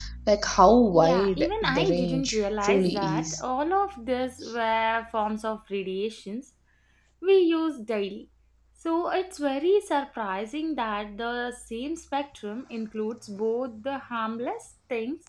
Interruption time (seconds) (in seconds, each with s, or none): 1.0 s